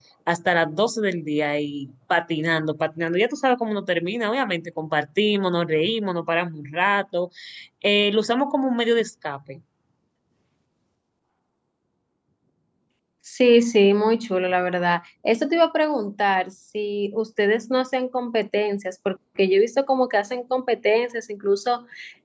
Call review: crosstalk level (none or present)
none